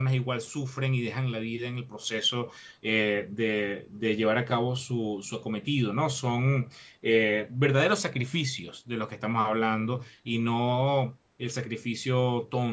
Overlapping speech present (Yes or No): No